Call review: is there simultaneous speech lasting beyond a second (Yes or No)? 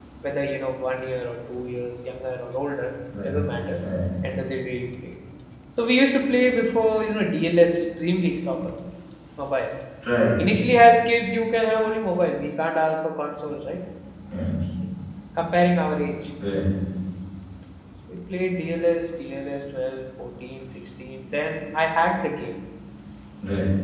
No